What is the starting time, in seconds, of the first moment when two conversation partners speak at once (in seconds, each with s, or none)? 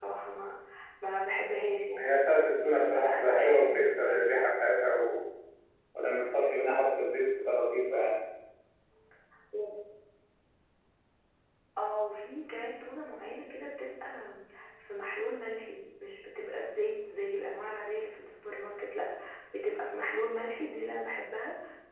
2.6 s